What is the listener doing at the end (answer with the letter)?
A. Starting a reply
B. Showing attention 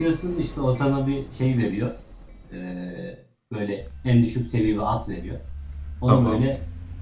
B